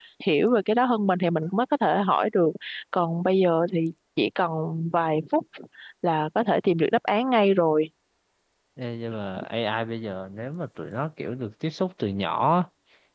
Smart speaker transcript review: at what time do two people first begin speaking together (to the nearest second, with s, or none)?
none